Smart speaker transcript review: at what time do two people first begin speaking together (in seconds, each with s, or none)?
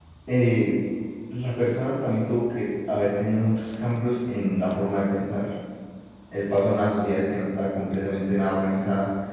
none